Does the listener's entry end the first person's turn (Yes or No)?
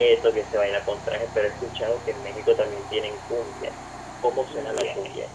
Yes